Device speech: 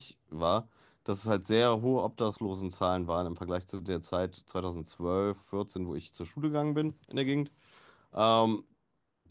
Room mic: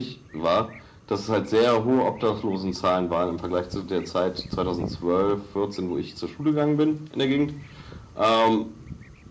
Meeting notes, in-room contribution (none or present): none